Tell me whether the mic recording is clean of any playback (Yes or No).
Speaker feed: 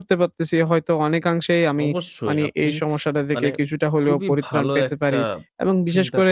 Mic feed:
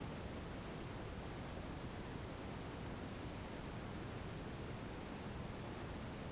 Yes